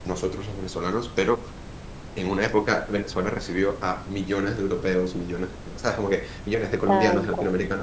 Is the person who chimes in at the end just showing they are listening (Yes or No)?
Yes